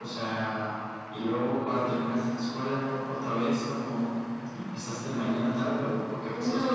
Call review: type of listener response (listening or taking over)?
taking over